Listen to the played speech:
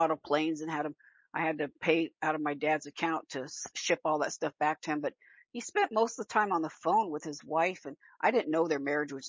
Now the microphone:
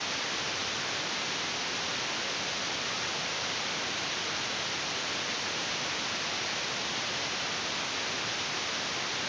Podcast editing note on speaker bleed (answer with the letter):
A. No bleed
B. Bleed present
A